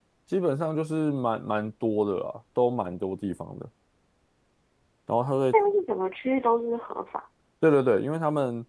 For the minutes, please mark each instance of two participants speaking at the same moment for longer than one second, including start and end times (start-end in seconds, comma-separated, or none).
none